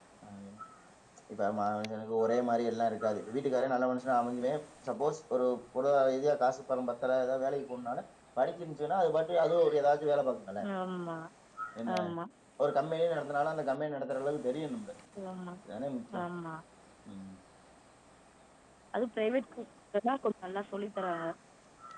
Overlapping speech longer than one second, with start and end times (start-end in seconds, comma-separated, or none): none